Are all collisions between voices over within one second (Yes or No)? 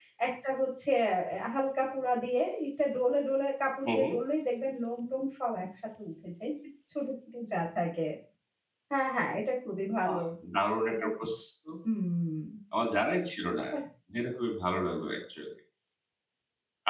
Yes